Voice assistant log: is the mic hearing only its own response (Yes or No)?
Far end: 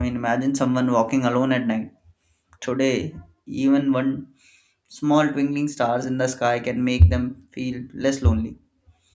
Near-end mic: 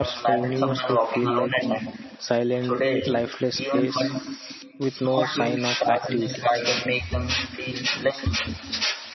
No